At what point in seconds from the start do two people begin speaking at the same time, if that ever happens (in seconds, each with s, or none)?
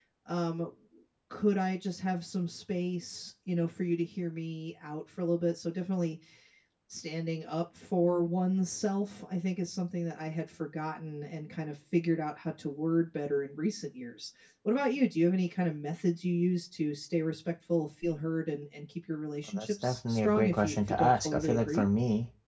19.4 s